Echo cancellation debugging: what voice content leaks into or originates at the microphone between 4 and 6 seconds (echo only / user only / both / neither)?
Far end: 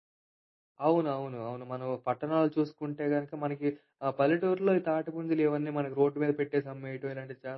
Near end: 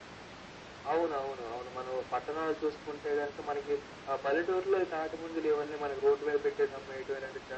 echo only